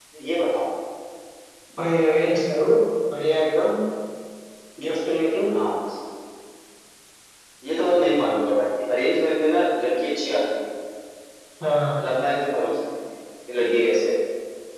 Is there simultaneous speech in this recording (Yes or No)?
No